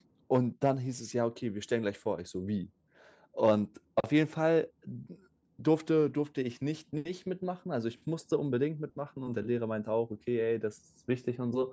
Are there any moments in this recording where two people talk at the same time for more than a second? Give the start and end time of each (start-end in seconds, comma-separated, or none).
none